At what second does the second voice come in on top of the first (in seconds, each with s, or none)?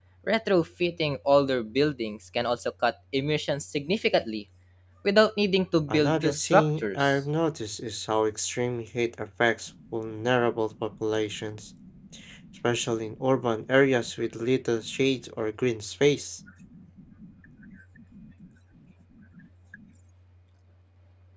5.9 s